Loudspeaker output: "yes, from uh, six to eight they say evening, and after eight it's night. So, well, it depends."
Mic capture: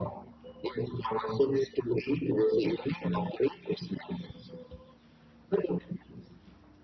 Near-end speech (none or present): none